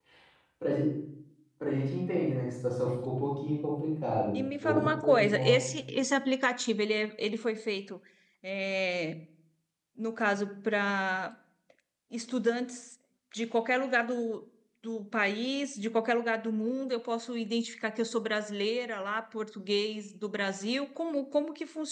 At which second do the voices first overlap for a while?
4.3 s

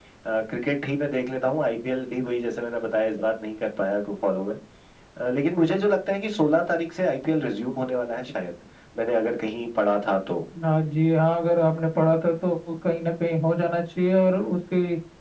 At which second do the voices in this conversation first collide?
none

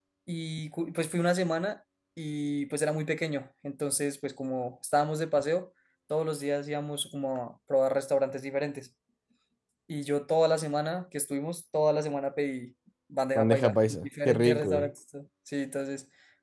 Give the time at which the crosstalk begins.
13.3 s

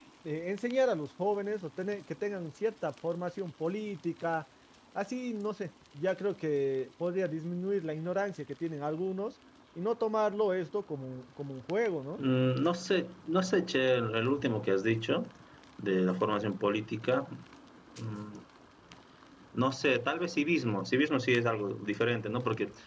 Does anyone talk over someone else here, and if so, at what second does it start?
none

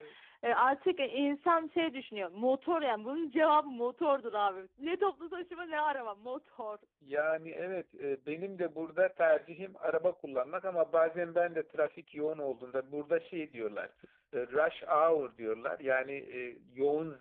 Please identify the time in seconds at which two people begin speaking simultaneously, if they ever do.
none

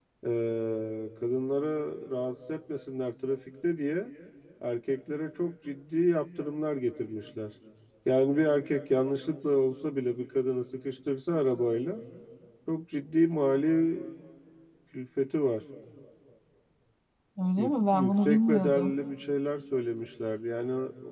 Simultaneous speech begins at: 17.6 s

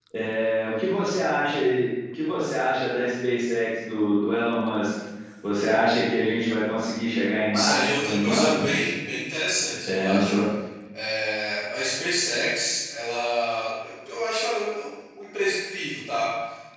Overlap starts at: 7.5 s

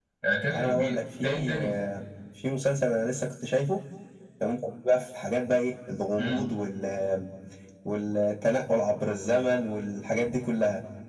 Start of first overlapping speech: 0.5 s

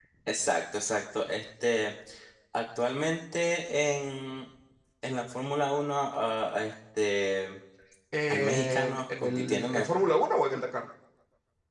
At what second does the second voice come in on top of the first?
8.3 s

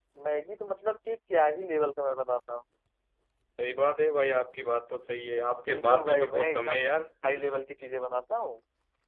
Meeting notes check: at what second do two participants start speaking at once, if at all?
5.7 s

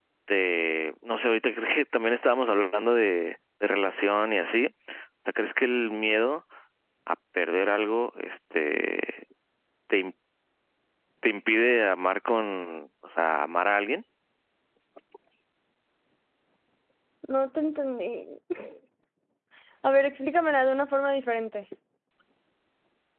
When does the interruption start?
none

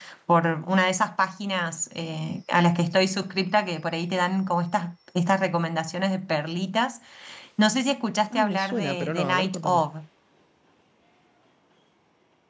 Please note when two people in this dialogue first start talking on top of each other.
8.3 s

